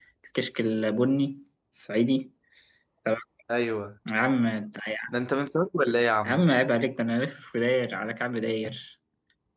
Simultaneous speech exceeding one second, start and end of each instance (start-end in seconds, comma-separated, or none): none